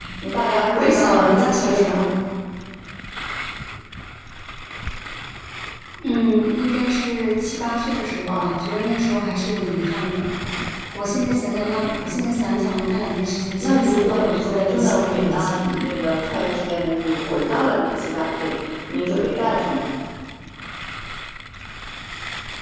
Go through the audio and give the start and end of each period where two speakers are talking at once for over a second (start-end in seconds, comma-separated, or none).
0.7-2.0, 13.6-15.6